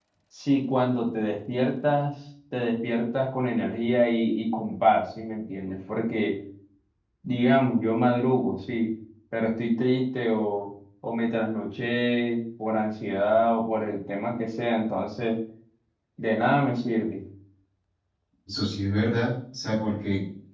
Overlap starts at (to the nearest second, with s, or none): none